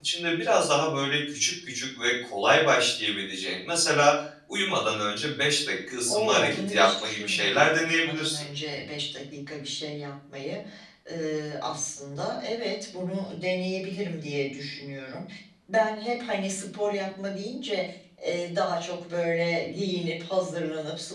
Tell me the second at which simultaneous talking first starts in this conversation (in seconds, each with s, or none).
6.1 s